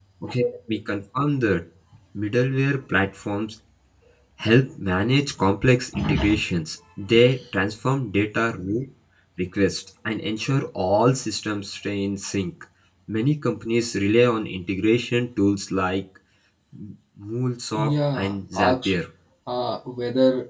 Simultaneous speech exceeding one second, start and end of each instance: 17.7-18.9

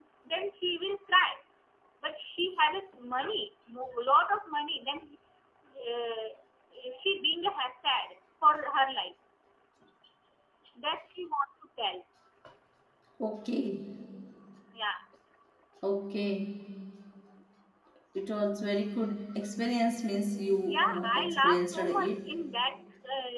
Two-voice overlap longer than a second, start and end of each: 20.6-22.3

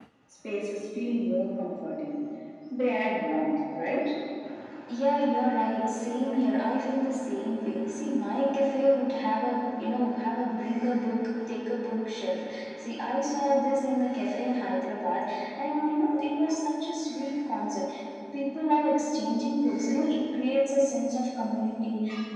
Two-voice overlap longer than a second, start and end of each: none

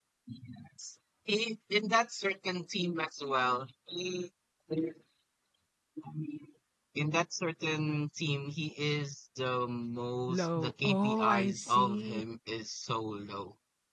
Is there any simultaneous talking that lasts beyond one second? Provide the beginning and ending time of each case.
10.3-12.2

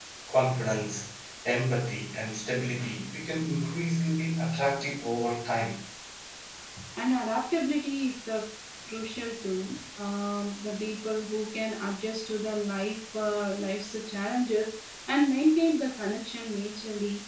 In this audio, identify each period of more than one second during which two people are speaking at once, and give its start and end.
none

